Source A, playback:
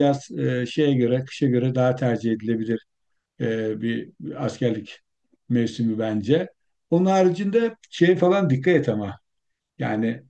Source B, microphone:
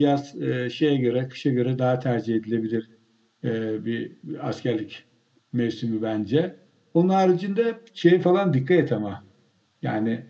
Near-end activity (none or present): none